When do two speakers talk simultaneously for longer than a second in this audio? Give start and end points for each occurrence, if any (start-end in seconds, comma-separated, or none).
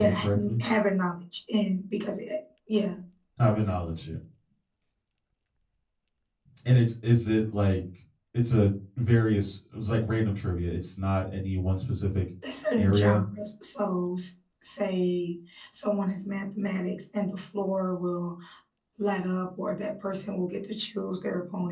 none